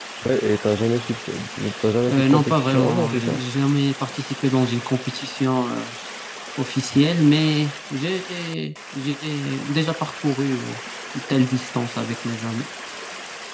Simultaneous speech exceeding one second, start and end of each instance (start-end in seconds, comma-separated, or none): 2.1-3.4